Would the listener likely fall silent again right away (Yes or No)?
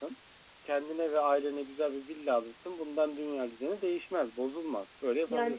No